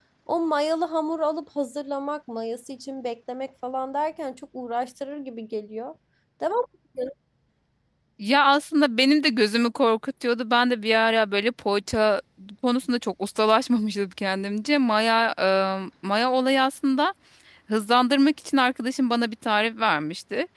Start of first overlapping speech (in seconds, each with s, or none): none